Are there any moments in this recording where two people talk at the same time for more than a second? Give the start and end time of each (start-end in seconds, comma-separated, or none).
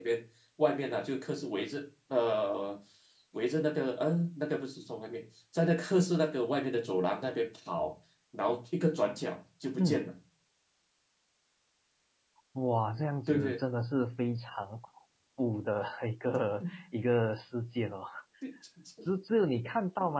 none